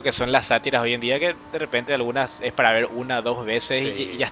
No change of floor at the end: Yes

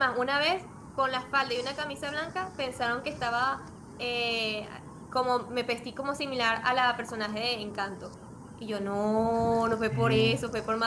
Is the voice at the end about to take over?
No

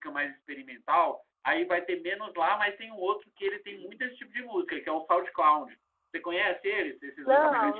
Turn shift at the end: Yes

